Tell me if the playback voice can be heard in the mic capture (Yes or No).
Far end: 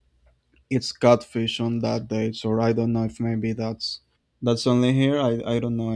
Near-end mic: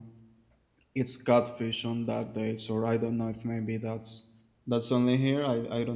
Yes